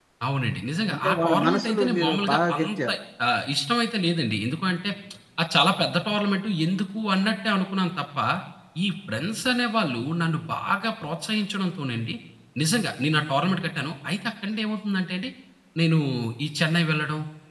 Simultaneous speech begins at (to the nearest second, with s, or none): 1 s